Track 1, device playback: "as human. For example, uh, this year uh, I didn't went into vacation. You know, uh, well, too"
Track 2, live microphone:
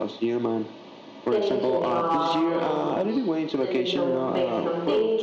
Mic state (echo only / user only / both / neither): both